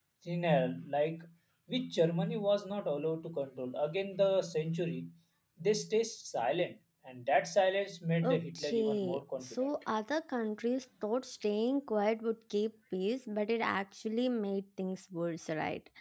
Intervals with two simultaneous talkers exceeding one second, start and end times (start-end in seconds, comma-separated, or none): 8.2-9.6